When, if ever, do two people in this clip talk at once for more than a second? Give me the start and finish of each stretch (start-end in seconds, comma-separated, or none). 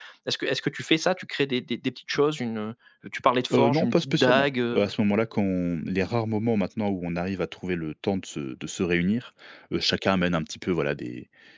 3.5-4.9